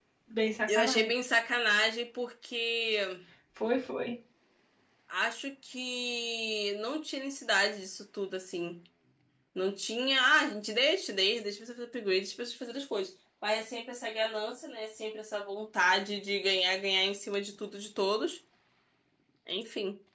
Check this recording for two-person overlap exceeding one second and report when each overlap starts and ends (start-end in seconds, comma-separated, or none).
none